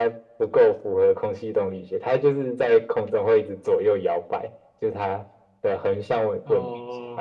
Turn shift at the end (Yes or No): Yes